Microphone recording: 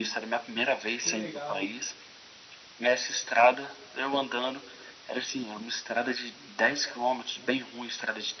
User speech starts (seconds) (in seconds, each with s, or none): 1.0 s